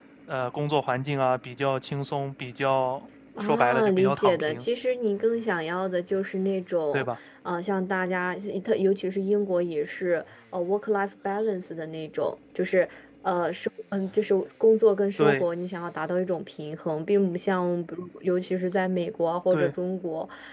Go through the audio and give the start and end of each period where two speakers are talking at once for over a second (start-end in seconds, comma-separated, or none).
3.4-4.6